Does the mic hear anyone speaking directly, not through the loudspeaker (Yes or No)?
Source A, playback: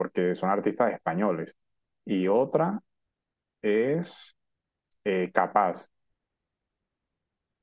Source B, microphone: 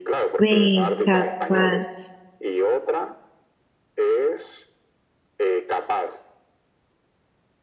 Yes